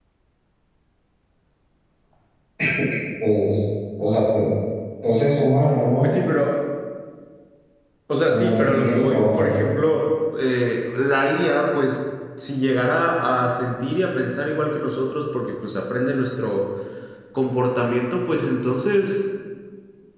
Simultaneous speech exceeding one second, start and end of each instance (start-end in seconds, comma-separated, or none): 8.3-9.5